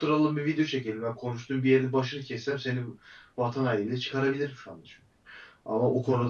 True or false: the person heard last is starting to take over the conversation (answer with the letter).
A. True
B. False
B